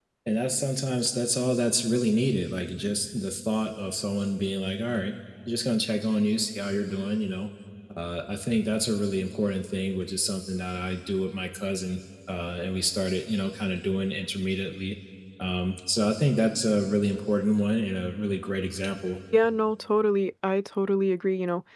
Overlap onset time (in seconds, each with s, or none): none